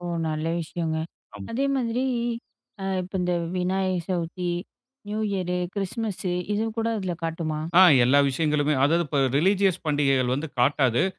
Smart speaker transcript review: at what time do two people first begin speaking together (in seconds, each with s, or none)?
none